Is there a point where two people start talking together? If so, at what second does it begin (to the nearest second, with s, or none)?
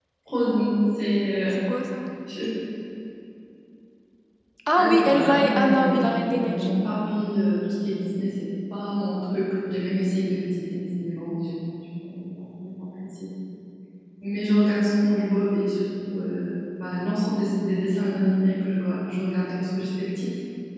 5 s